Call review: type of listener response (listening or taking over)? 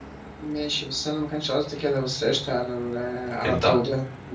listening